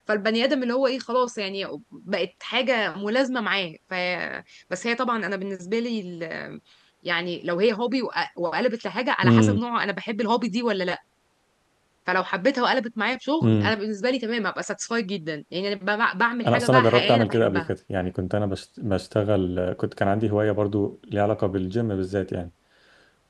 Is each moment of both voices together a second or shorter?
No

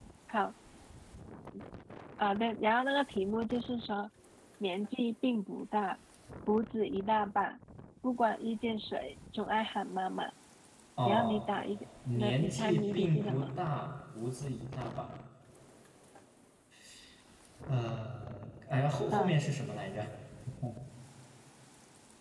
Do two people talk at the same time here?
Yes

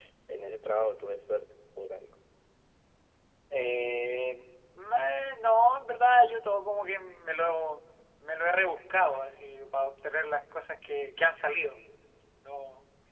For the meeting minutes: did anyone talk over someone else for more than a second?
No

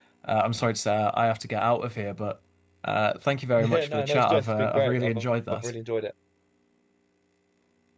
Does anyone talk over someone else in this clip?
Yes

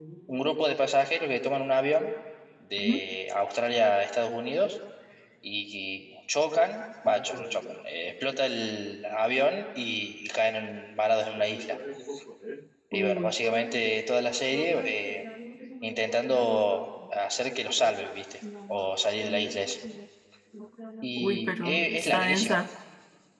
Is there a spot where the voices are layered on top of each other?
Yes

